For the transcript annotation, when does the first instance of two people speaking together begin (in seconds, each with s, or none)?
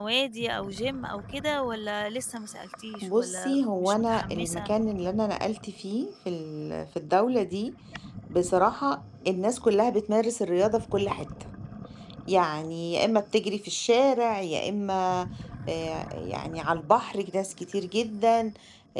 3.0 s